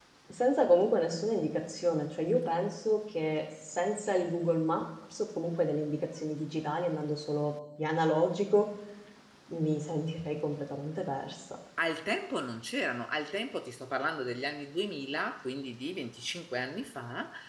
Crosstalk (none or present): none